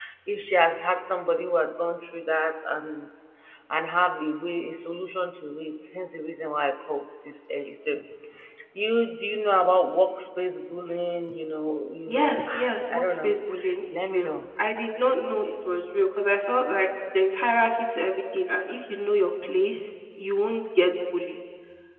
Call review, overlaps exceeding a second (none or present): present